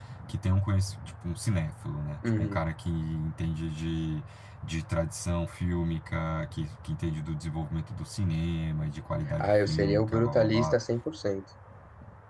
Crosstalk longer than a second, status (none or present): present